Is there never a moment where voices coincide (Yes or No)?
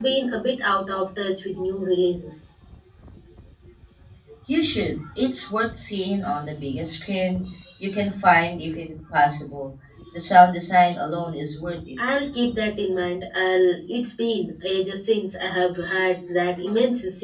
Yes